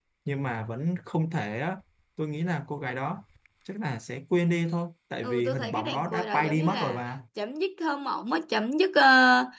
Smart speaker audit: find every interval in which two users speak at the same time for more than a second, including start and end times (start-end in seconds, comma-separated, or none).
5.2-7.0